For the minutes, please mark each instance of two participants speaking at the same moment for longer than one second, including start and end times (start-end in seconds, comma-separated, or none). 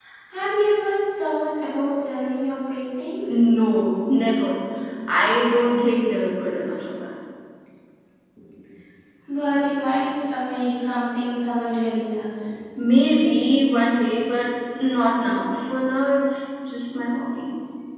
none